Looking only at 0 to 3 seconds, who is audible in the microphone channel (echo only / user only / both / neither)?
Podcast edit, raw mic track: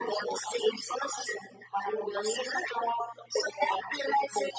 echo only